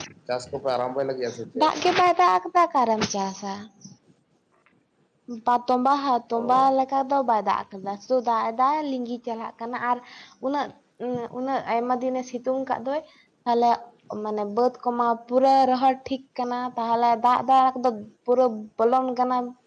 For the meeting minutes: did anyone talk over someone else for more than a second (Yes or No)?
No